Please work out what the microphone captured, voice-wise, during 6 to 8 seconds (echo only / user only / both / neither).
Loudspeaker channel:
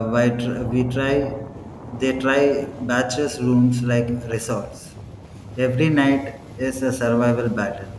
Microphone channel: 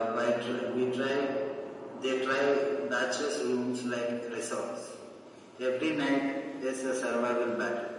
echo only